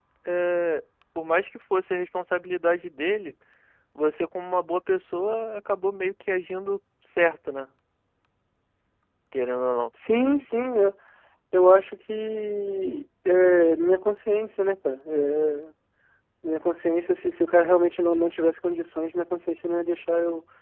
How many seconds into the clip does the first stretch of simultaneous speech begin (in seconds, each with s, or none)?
none